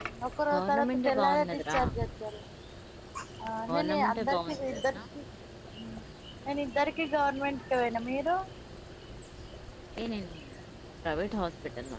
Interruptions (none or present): present